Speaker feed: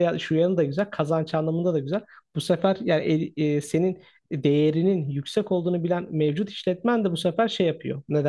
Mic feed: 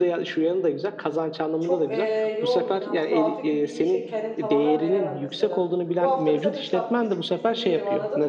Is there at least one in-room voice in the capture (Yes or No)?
Yes